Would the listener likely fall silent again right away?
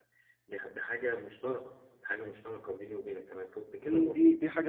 No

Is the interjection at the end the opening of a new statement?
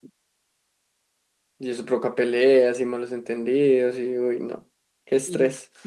Yes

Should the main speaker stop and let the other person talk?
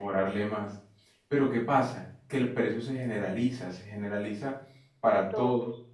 No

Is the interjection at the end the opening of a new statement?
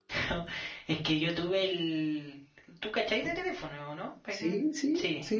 Yes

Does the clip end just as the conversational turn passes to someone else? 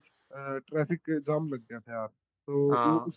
No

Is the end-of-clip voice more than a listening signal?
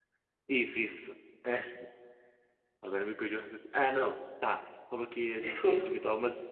No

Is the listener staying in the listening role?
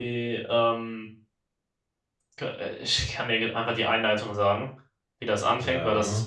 Yes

